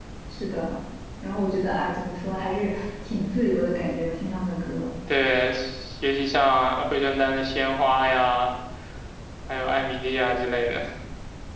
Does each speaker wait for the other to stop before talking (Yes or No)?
Yes